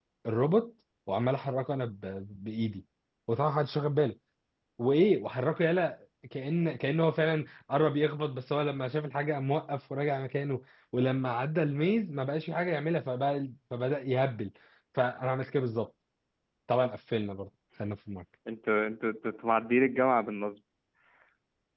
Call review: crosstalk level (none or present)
none